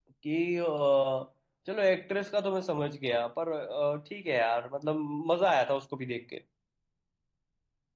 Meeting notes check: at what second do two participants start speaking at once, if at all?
none

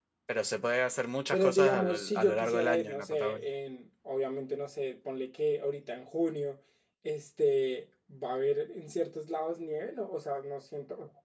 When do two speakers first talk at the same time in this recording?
1.3 s

